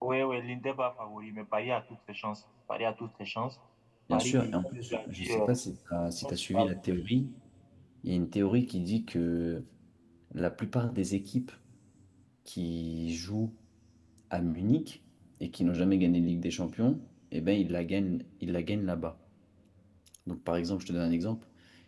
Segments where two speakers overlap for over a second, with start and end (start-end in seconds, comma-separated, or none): 4.1-5.5